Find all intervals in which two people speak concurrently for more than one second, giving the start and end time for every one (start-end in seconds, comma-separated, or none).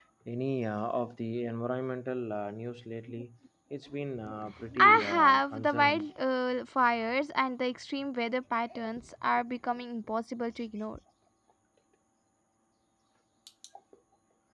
4.8-6.0